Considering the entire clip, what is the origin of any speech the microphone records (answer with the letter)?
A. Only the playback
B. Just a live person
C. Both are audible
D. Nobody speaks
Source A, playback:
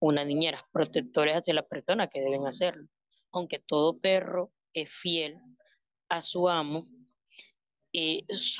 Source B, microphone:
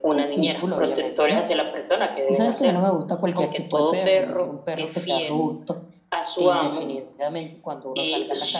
C